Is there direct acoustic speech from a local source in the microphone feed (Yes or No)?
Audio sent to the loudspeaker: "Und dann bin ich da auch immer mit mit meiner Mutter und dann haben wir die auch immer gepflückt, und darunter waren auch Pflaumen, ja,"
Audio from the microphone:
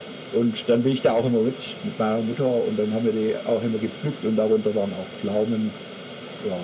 No